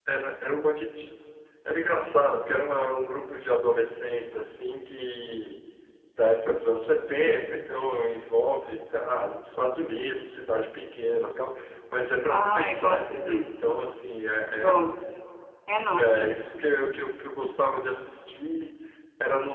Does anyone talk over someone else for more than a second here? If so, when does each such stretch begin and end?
12.3-13.8

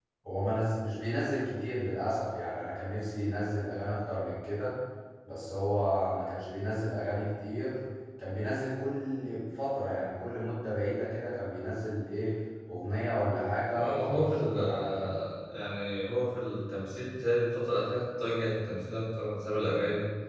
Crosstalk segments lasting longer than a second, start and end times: 13.7-15.1

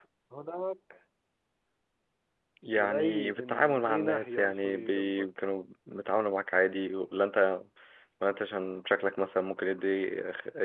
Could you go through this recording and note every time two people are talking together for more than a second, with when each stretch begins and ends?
2.8-5.3

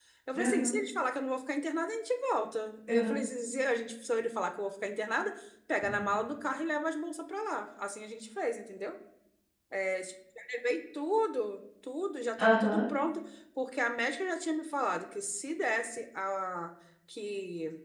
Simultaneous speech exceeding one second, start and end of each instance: none

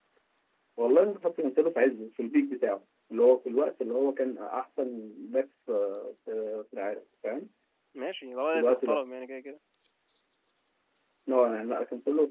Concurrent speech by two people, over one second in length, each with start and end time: none

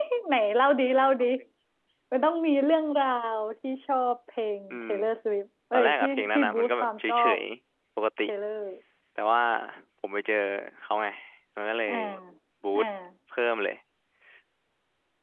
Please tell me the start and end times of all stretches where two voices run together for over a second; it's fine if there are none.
5.7-7.4

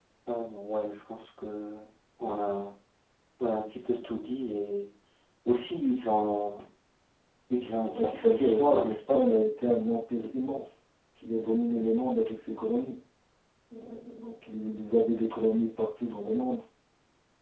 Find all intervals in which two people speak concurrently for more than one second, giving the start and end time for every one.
8.0-9.2

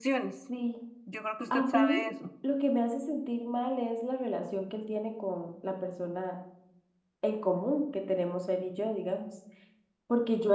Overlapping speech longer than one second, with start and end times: none

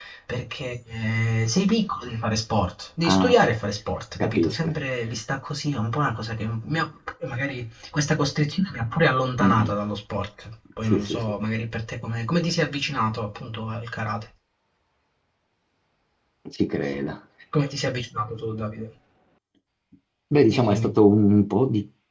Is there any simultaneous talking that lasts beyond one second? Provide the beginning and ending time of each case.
none

